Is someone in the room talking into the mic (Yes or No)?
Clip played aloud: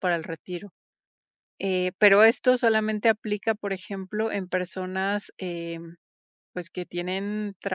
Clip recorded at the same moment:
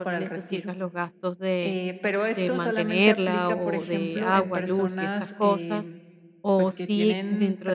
Yes